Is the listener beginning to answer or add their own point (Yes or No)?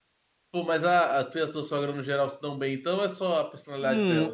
Yes